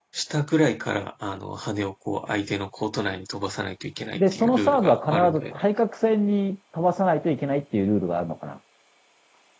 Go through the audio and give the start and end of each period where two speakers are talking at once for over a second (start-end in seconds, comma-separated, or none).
4.2-5.6